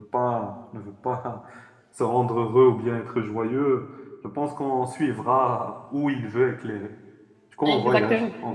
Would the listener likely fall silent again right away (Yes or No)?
Yes